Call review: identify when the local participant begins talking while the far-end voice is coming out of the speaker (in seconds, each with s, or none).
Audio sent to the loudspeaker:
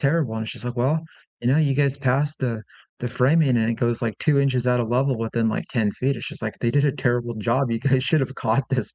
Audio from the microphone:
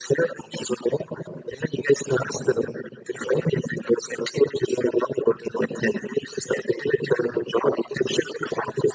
none